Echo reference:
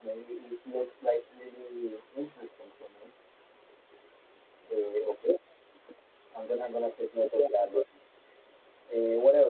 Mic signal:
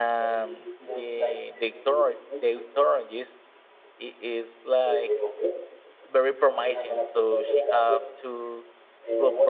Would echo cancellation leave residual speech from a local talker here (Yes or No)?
Yes